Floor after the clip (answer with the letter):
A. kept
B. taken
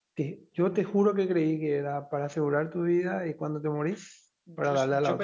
B